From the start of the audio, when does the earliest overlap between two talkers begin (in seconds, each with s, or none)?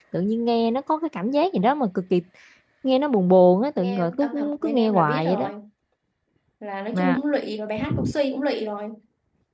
3.8 s